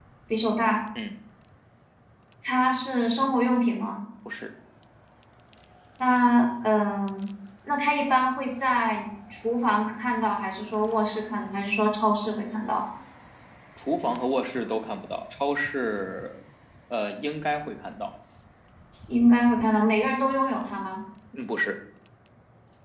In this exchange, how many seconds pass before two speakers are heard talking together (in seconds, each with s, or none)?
none